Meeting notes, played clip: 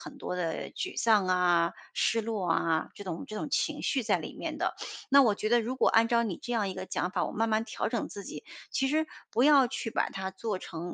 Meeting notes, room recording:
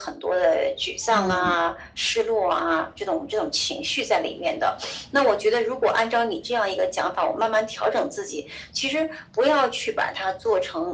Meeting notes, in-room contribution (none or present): present